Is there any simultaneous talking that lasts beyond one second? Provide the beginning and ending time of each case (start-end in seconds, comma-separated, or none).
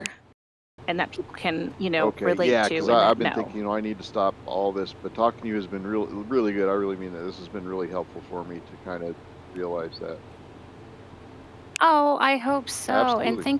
2.0-3.5